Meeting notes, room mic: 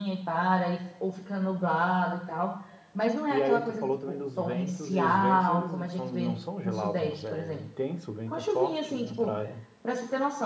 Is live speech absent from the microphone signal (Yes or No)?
No